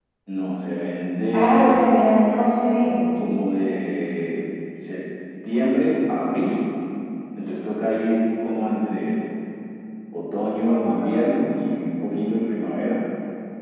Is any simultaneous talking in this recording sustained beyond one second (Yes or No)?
No